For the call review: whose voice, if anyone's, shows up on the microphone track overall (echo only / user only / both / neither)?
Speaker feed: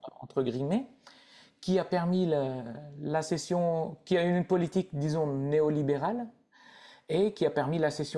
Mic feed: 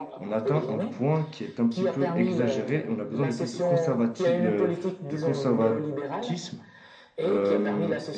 both